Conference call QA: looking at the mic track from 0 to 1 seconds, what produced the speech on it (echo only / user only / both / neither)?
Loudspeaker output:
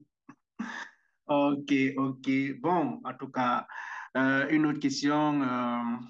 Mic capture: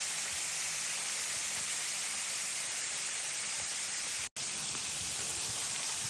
neither